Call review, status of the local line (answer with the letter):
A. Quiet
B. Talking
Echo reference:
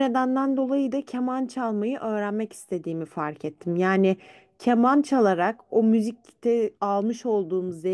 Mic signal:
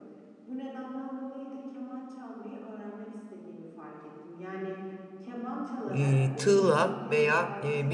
B